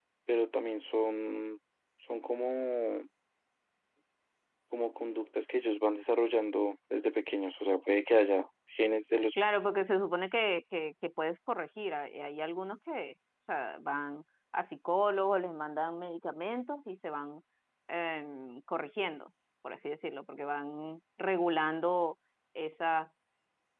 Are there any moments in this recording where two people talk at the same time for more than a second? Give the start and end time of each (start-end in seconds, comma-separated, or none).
none